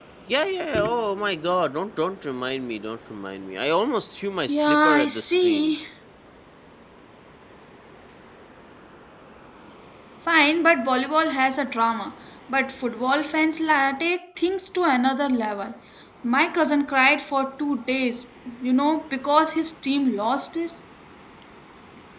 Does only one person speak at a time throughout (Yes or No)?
No